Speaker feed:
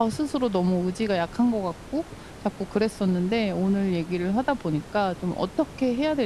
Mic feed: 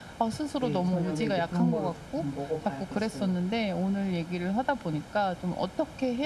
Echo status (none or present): present